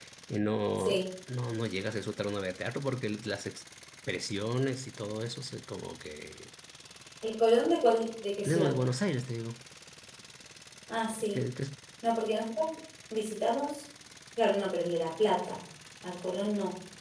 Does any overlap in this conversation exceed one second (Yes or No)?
No